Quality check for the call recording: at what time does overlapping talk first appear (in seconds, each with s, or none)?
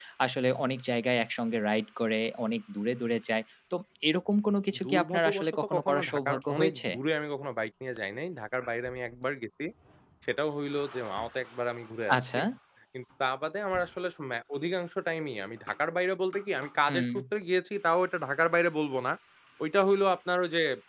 4.8 s